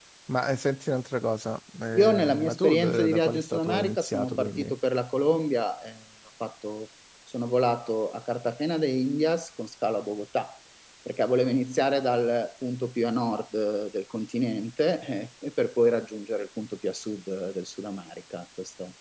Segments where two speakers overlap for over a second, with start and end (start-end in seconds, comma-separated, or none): 2.0-4.7